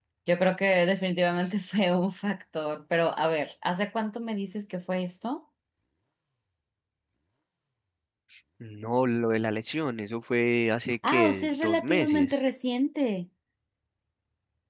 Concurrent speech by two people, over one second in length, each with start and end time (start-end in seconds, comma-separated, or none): 11.1-12.4